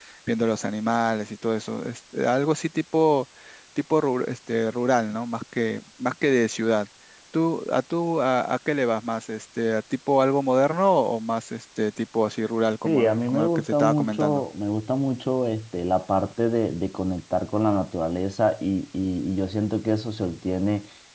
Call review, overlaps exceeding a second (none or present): present